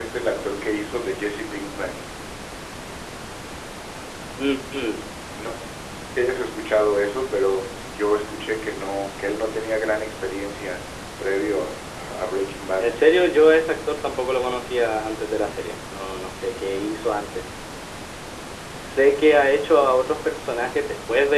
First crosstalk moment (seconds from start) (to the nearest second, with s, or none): none